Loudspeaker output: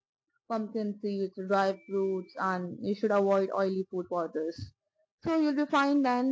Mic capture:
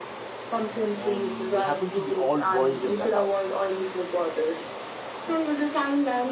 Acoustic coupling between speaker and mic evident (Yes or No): Yes